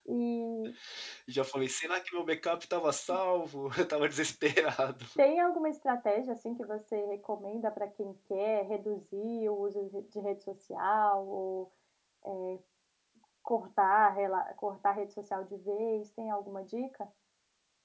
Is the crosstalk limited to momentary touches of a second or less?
Yes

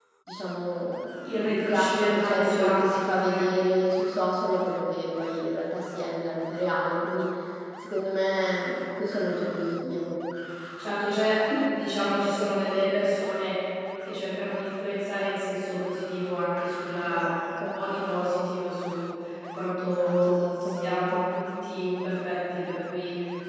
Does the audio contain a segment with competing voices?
Yes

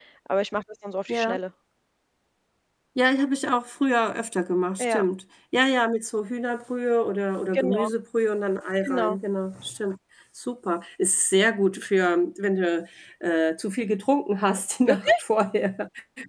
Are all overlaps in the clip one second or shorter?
Yes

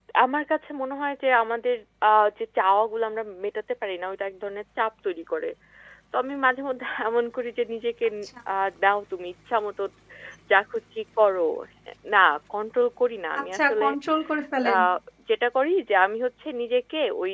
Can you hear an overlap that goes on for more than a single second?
No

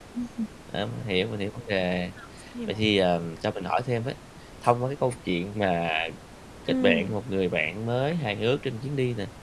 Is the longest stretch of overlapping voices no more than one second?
Yes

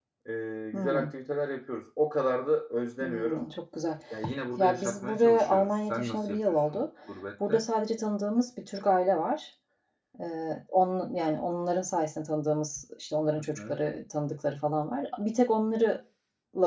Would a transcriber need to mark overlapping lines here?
Yes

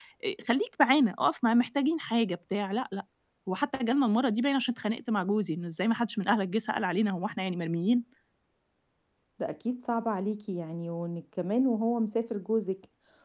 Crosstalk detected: No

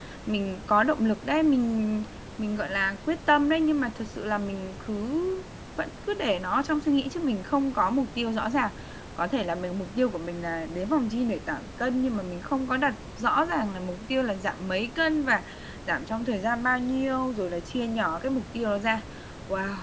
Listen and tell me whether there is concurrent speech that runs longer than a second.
No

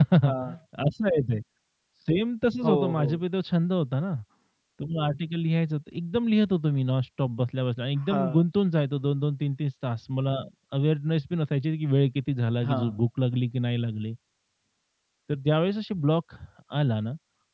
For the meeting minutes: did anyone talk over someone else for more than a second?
No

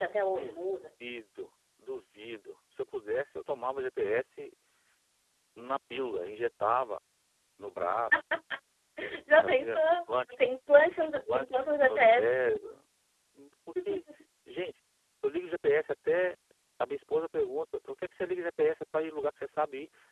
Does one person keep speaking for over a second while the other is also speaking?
Yes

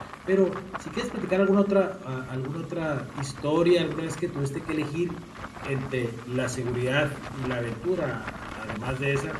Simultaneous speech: No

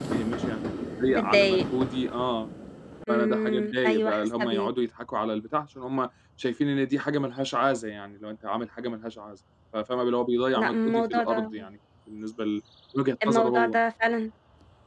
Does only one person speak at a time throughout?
No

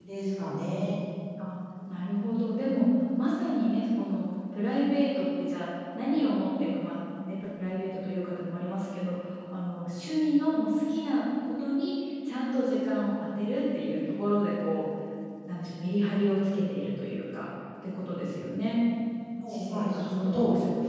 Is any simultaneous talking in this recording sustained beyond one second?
Yes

